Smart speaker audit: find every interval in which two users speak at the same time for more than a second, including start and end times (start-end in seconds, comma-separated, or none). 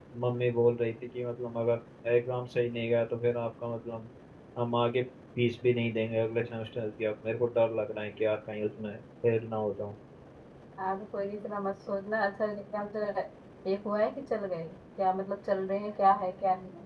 none